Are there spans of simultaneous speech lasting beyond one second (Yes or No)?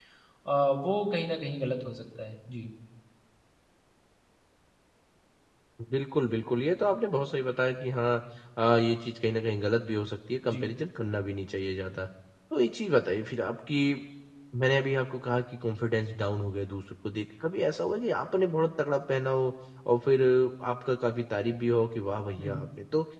No